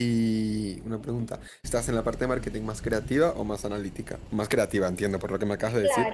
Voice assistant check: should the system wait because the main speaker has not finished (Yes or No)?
No